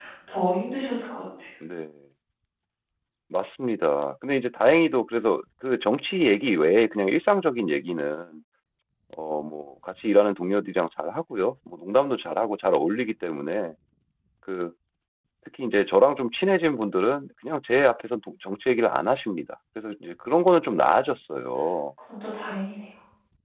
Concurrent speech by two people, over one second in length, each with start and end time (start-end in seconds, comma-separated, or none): none